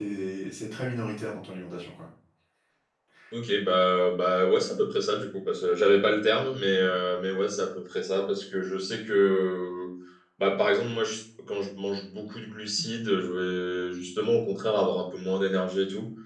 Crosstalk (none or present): none